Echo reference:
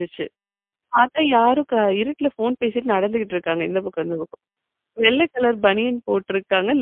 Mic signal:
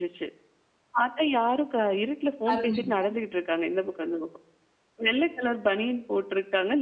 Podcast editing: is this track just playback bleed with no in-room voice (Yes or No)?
No